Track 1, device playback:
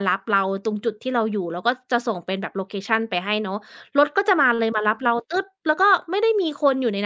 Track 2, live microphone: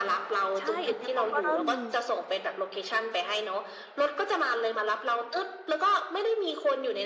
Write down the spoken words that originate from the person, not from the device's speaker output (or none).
ใช่อันเนี้ยเขาก็เริ่มมี